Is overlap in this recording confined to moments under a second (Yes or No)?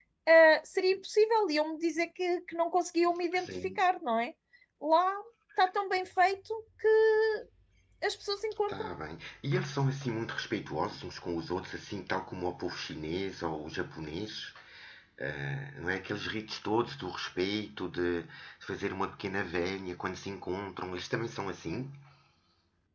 Yes